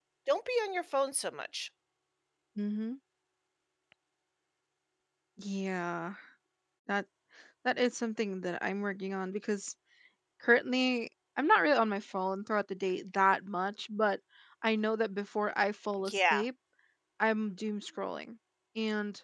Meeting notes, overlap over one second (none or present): none